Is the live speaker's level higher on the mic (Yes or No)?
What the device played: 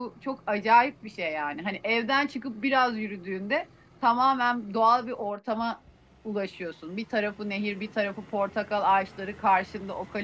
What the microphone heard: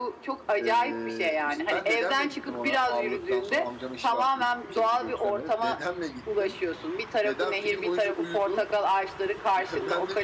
No